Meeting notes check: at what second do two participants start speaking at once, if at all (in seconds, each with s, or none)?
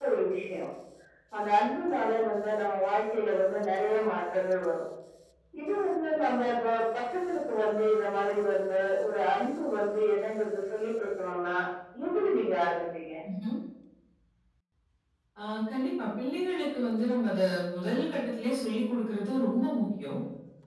none